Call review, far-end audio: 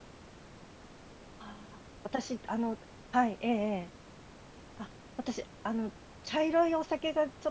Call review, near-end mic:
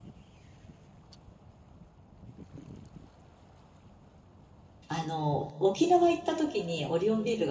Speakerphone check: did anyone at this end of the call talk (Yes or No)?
Yes